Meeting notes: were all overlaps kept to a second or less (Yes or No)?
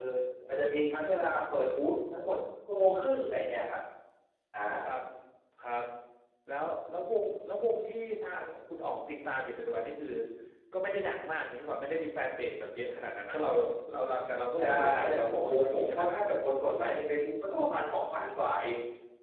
No